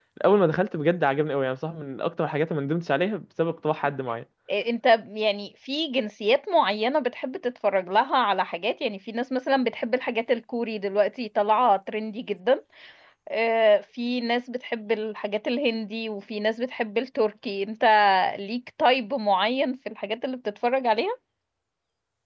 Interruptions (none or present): none